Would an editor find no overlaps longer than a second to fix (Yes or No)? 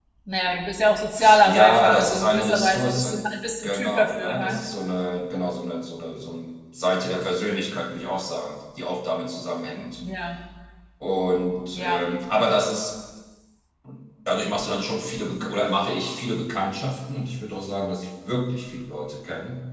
No